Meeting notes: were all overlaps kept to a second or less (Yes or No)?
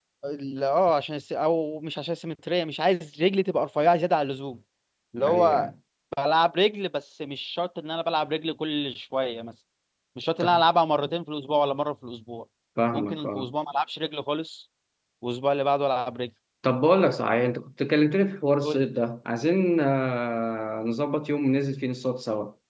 Yes